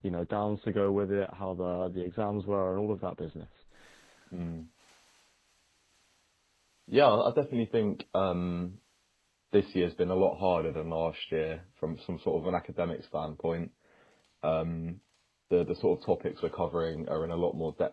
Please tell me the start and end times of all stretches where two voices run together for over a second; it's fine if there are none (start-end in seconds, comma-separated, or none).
none